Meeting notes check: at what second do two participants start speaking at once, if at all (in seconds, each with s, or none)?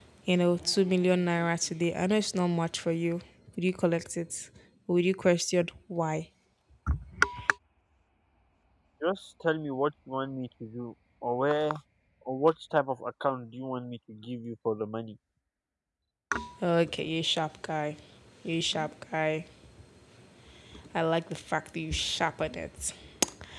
none